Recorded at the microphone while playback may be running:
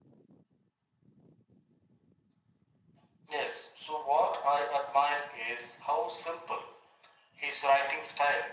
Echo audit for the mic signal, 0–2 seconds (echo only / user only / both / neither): neither